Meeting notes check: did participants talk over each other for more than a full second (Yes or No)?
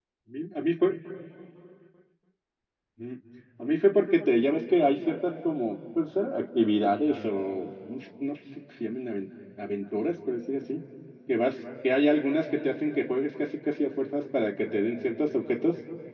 No